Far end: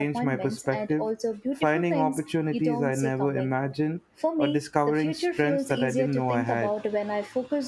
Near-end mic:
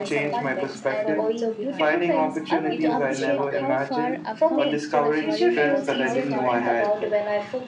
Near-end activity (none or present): present